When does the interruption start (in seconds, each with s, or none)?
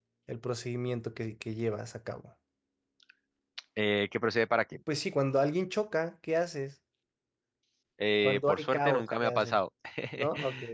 8.2 s